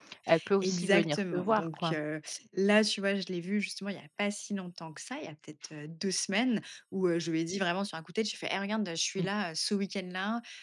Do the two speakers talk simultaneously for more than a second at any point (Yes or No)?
Yes